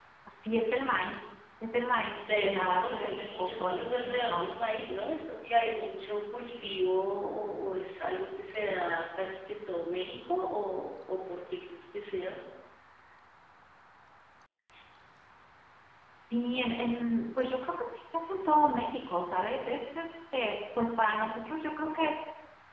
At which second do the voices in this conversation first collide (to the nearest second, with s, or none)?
2 s